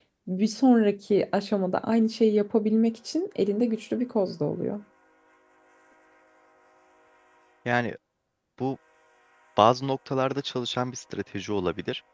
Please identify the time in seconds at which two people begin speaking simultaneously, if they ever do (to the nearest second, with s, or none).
none